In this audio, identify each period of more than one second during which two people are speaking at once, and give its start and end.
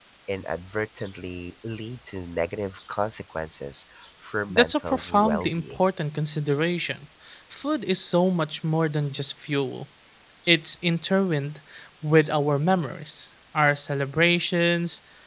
4.5-5.9

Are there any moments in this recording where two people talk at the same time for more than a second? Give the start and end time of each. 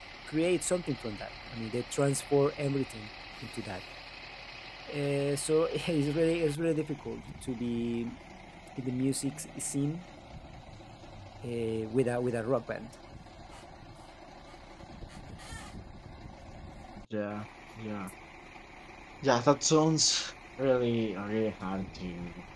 none

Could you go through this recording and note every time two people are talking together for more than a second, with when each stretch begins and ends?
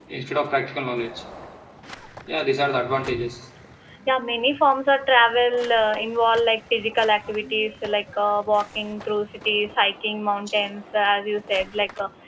none

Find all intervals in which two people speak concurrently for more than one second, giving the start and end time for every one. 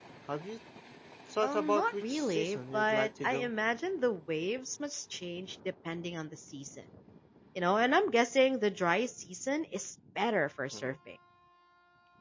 1.4-3.5

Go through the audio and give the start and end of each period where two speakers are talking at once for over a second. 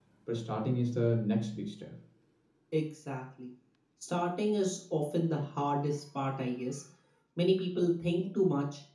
none

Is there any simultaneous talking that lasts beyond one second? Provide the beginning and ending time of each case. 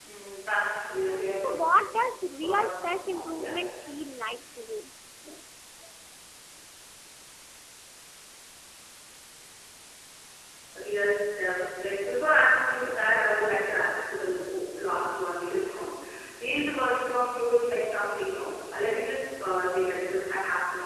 2.4-3.6

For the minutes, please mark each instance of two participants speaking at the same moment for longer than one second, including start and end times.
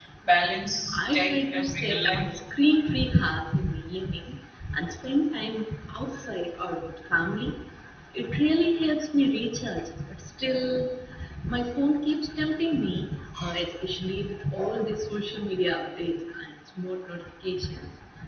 0.9-2.3

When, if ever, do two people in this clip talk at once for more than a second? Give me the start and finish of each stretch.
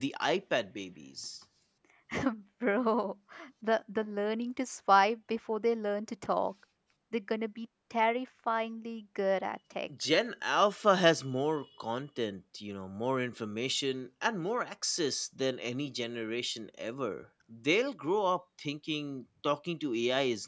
none

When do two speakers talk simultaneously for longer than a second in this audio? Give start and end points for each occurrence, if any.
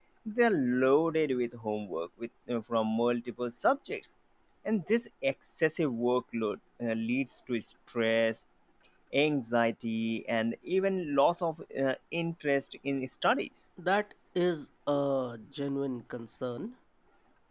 none

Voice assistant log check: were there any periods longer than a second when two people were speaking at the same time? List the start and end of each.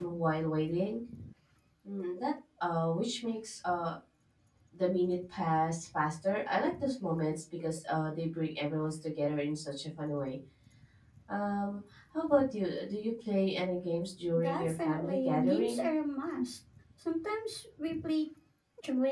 14.3-15.9

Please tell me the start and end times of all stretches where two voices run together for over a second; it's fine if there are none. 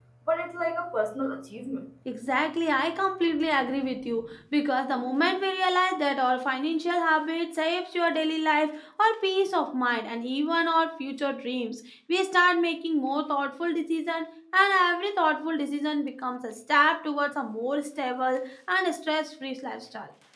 none

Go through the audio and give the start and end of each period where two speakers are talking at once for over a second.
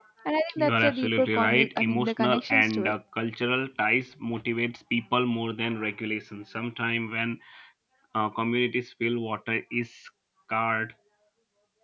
0.6-2.9

